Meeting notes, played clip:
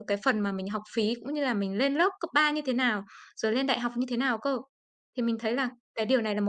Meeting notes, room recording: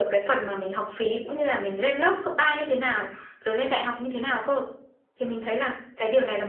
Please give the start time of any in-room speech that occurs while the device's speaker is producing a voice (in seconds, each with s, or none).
none